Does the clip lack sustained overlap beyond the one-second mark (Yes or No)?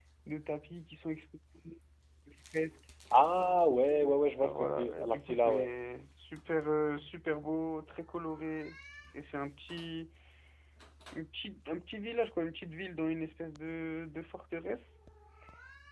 No